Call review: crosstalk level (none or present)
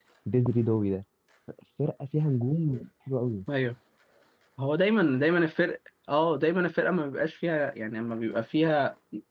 none